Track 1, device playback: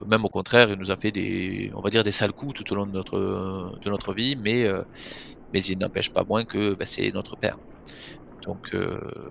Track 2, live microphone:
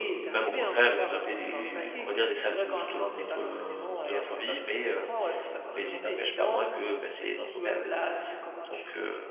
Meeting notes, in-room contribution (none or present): present